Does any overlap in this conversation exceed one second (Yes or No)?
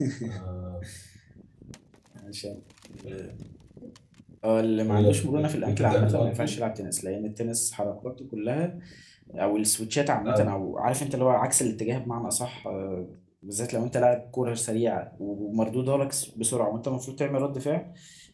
Yes